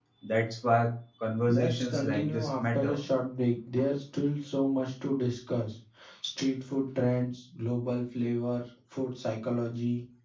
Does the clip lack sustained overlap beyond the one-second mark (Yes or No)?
No